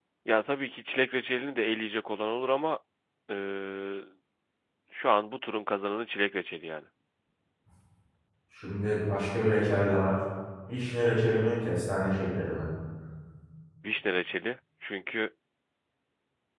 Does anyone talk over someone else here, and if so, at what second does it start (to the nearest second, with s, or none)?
none